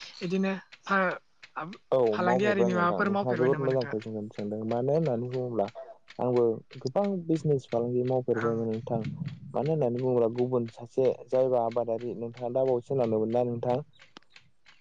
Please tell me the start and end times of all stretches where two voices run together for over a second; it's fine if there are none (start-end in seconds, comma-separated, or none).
2.2-3.9